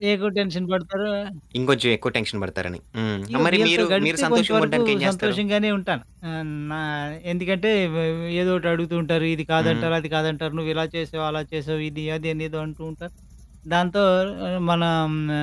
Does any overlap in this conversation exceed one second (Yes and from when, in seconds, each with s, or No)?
Yes, from 3.3 s